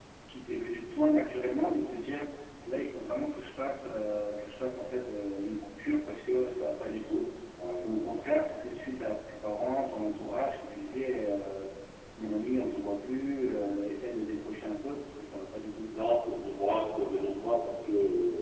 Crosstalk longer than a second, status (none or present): none